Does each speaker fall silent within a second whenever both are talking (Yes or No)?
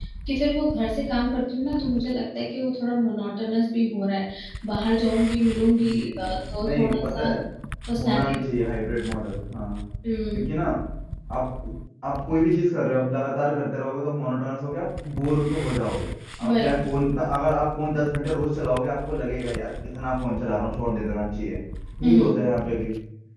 No